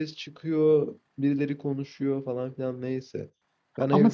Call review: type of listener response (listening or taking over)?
taking over